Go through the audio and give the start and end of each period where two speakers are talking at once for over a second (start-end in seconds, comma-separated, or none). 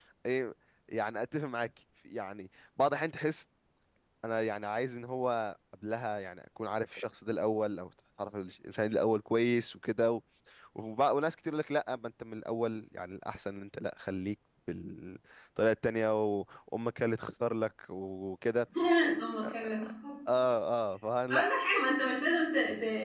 none